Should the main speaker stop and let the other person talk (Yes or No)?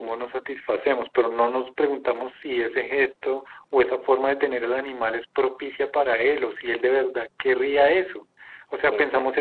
No